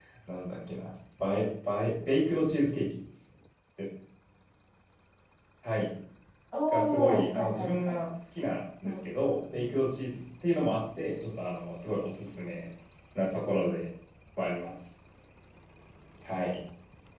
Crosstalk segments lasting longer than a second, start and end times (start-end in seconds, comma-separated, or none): 6.7-8.0